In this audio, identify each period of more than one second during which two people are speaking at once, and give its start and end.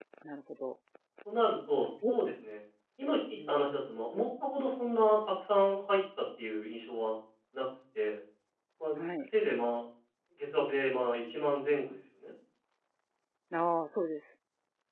none

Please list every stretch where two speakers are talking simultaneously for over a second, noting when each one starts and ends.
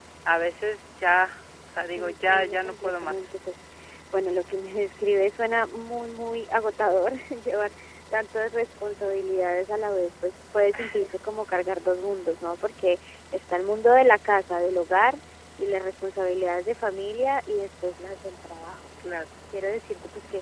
2.0-3.2

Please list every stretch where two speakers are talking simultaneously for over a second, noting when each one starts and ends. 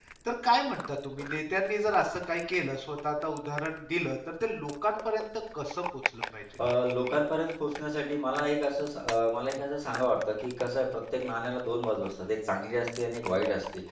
none

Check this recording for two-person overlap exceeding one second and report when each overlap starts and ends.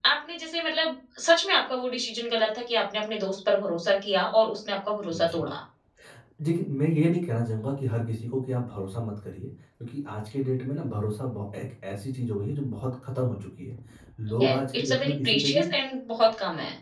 14.4-15.6

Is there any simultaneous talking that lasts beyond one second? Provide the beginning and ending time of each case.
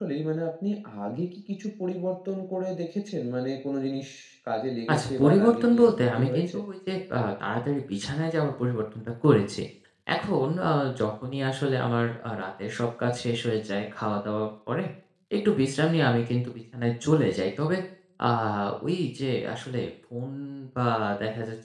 4.9-6.6

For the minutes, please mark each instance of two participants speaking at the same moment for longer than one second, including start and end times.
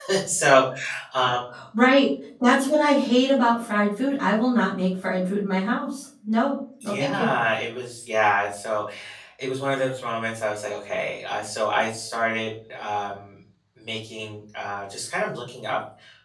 none

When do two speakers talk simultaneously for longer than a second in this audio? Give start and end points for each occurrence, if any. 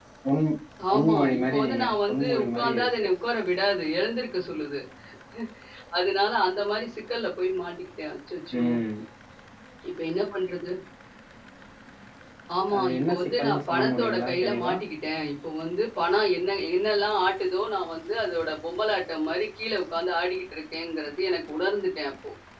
0.9-3.1, 12.8-14.7

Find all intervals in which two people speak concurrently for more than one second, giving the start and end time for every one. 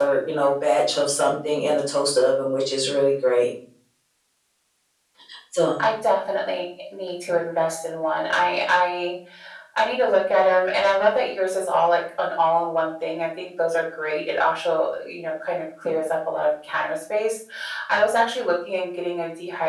none

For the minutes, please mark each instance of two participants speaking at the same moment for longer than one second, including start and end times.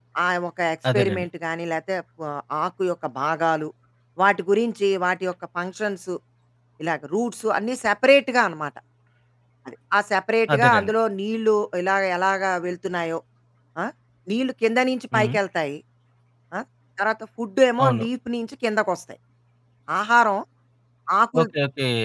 none

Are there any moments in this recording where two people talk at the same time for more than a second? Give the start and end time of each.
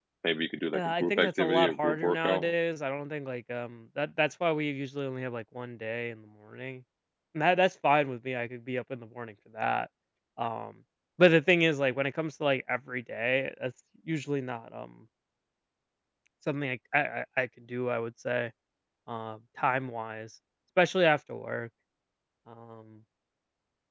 0.7-2.5

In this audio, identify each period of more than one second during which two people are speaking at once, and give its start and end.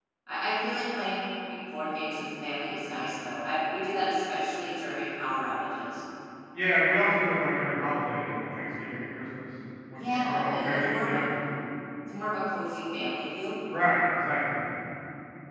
9.9-11.2

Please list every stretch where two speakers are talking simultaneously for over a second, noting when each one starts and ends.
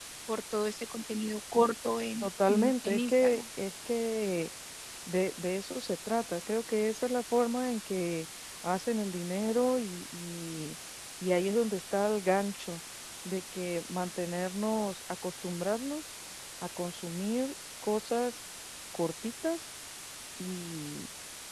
2.2-3.4

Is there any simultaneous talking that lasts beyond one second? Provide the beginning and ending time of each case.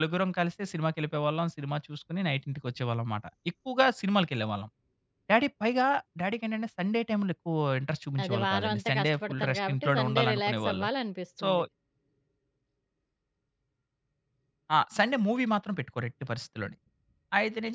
8.2-10.9

